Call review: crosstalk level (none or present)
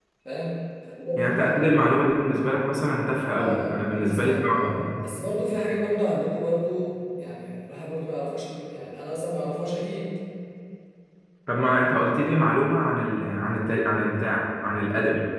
present